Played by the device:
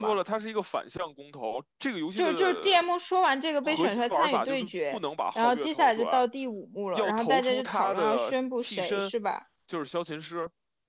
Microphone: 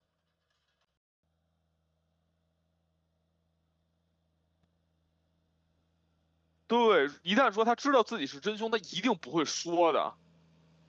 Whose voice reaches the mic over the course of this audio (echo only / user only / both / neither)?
user only